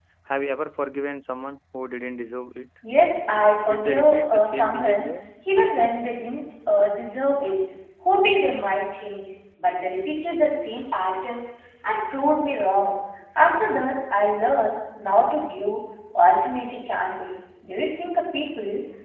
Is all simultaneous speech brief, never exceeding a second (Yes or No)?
No